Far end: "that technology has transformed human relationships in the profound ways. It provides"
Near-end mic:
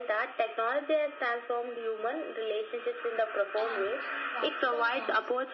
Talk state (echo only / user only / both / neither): both